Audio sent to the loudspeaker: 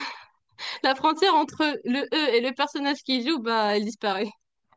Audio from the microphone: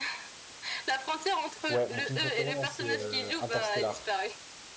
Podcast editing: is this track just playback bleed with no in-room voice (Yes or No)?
No